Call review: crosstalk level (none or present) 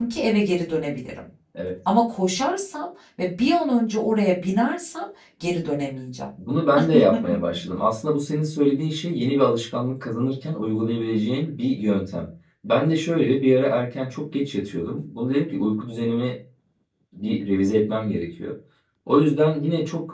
none